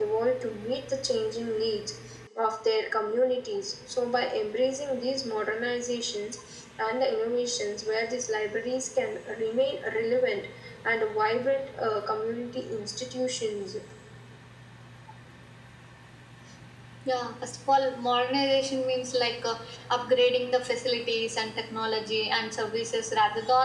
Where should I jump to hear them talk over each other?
none

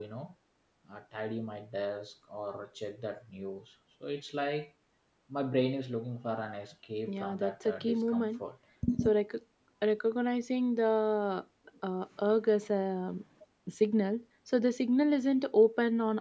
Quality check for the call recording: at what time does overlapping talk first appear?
7.1 s

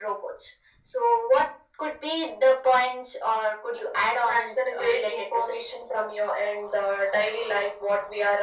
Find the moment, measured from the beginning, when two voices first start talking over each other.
4.3 s

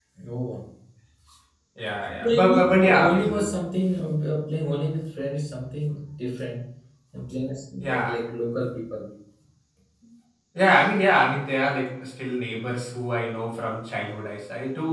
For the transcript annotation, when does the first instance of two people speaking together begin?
2.2 s

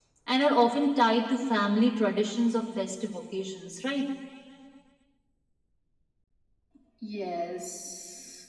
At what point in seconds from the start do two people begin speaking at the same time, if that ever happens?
none

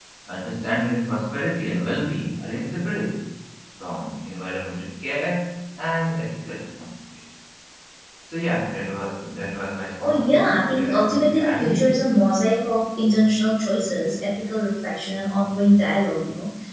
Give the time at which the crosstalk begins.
10.0 s

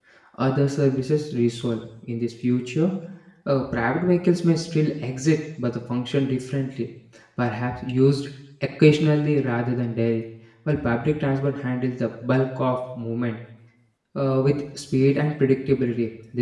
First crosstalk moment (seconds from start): none

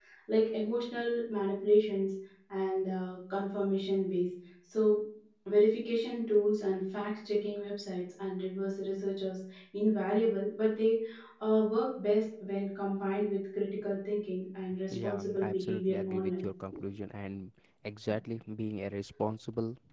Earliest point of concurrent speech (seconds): 14.9 s

